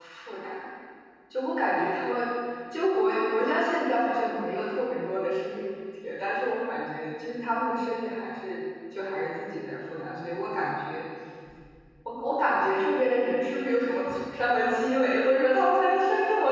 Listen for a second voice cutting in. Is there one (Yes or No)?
No